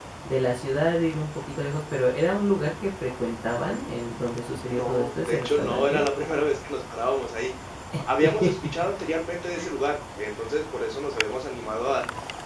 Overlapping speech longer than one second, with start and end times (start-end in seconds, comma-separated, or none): 4.7-6.0